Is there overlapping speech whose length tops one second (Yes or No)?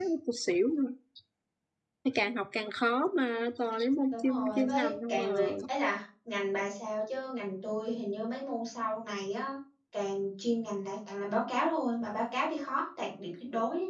Yes